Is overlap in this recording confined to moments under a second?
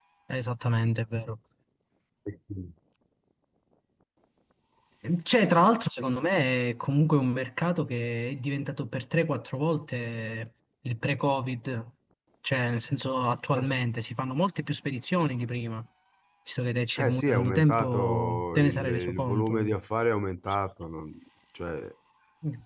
No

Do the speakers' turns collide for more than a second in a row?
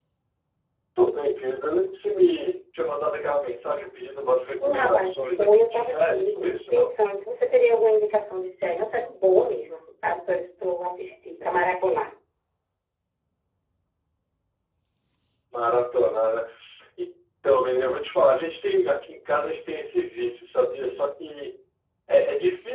Yes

